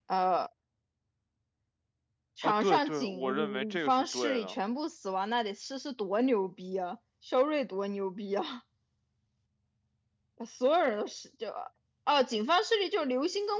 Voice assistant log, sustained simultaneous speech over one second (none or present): present